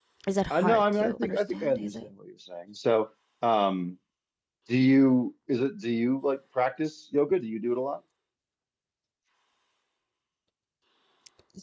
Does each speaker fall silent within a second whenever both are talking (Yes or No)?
No